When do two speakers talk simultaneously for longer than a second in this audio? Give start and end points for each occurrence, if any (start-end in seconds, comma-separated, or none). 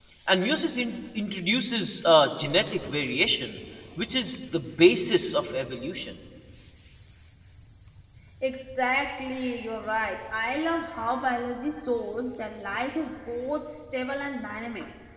none